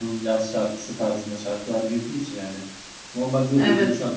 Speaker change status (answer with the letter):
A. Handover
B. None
B